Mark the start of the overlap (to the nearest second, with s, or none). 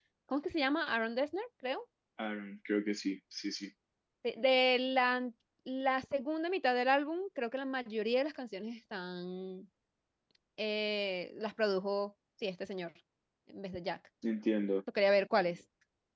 none